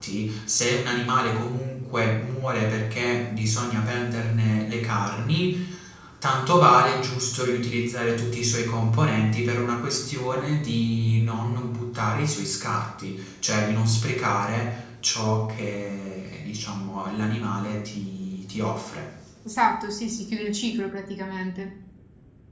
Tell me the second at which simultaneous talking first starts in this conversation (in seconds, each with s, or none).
none